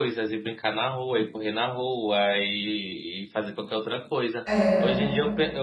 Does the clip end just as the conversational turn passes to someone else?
No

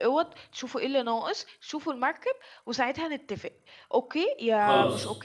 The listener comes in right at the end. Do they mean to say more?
No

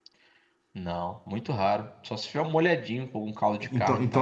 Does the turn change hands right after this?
Yes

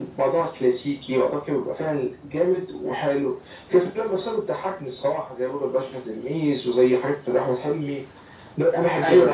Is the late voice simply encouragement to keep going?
No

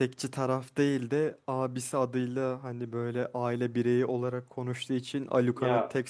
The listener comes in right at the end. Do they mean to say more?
No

